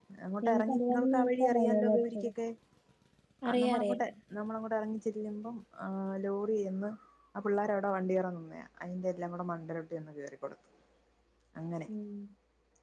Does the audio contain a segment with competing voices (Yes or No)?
Yes